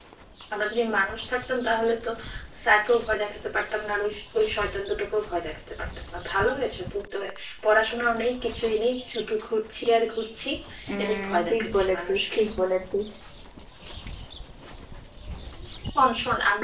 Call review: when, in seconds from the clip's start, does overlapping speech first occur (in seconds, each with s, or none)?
11.0 s